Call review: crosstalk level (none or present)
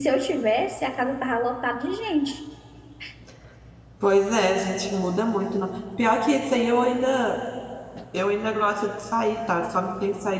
none